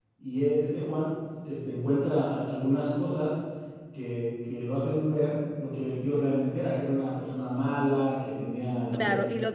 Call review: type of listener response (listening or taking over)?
taking over